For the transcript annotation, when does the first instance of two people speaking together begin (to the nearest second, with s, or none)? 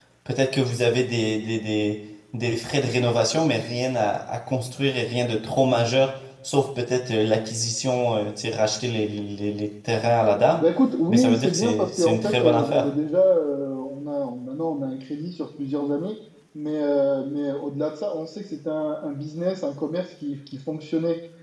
11 s